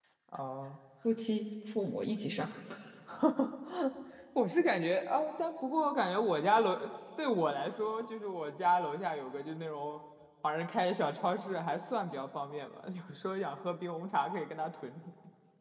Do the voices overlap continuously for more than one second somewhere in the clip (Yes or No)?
No